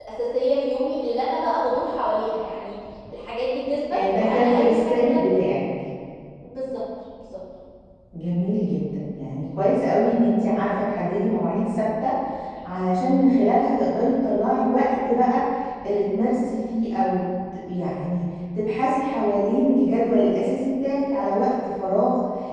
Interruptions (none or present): present